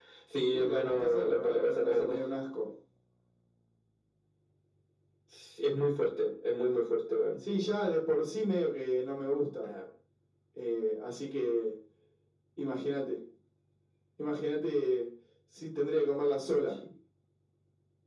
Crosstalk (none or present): present